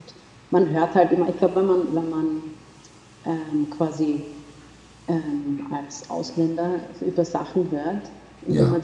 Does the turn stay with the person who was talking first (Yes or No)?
Yes